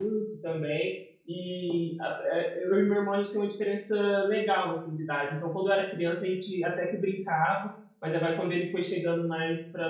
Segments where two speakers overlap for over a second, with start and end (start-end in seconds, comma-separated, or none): none